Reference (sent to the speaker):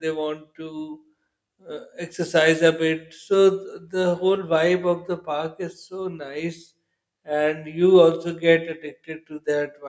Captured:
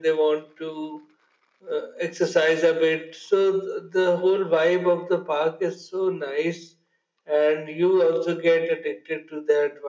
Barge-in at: none

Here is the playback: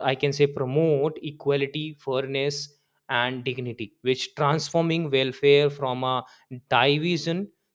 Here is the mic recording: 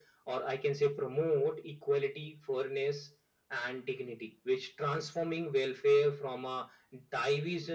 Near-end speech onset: none

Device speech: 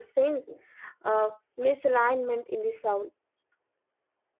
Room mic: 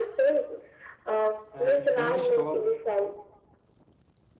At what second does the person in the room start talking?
1.5 s

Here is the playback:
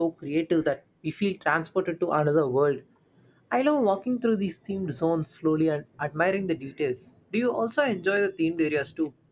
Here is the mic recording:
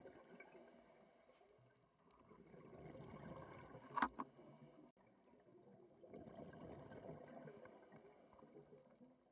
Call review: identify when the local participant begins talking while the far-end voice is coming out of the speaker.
none

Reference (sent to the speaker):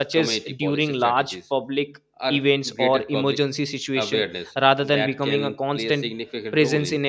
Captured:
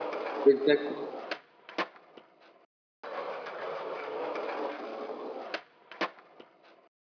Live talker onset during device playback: 0.4 s

